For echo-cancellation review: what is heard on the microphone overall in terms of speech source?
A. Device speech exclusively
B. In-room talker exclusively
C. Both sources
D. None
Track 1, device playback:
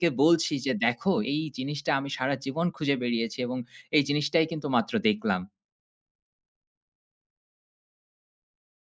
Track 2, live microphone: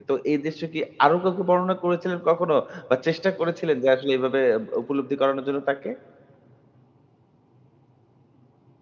B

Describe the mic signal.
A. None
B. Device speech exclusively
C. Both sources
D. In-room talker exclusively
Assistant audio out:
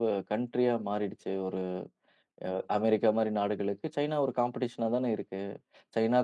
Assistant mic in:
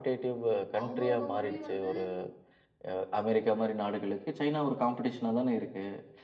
C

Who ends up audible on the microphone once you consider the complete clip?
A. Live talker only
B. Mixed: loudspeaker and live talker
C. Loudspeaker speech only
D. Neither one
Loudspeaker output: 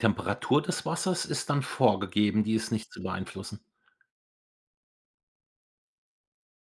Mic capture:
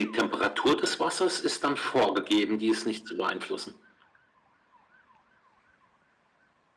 C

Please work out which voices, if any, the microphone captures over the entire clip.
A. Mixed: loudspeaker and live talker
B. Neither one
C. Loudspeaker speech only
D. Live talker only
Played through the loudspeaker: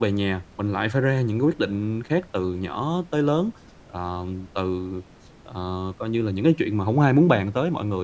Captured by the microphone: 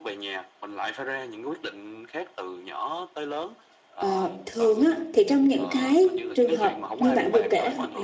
A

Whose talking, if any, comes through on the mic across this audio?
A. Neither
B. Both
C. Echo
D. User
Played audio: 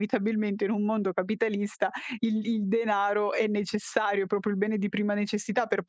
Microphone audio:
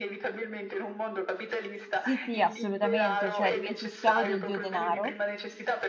B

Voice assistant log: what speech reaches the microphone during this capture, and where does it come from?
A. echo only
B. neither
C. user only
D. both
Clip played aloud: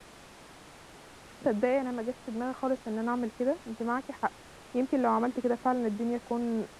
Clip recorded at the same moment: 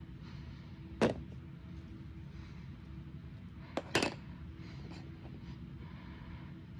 B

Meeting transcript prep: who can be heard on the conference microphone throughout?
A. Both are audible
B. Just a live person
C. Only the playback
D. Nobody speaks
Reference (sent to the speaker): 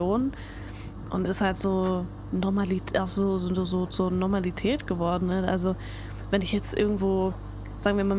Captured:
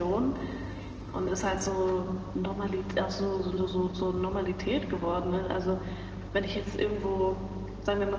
C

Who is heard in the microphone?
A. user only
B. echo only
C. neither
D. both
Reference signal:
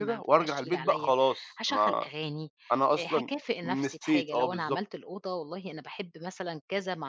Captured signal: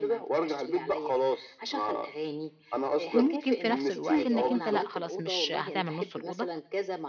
D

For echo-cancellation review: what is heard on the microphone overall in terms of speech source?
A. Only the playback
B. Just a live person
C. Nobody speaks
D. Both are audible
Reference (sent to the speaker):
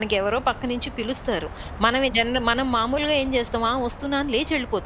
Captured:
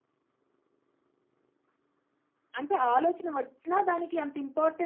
B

